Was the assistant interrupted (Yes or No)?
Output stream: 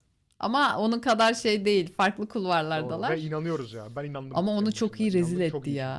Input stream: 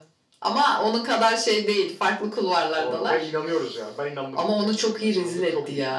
No